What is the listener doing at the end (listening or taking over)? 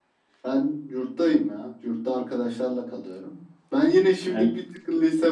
listening